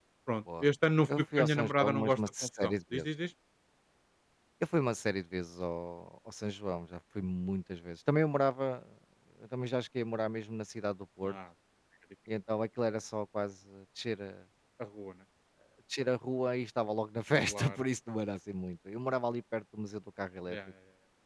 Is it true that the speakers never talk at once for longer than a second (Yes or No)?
No